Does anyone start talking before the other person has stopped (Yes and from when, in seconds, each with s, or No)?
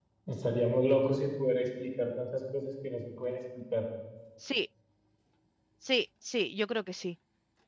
No